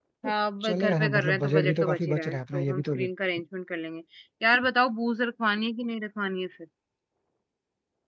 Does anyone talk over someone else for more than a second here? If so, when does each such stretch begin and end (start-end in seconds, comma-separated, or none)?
0.7-3.0